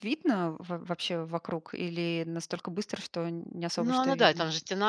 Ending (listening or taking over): taking over